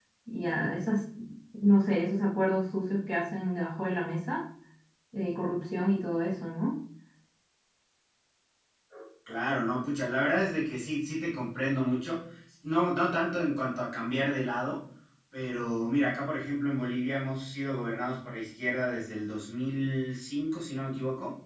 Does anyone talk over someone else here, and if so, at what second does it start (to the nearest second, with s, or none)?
none